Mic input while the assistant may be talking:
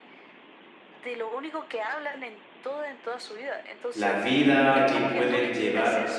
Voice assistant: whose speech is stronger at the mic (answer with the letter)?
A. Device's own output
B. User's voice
B